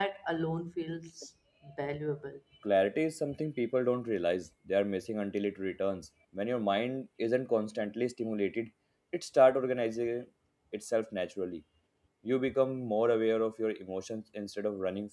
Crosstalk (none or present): none